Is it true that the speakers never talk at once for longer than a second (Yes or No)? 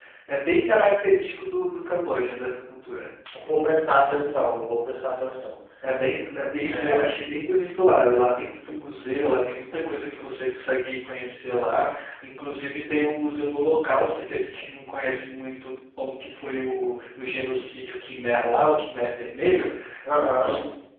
Yes